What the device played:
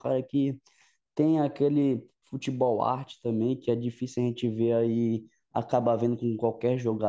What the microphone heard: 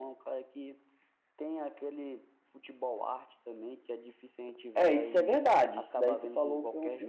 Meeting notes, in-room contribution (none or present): present